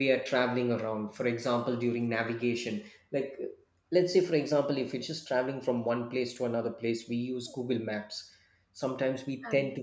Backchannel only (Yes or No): Yes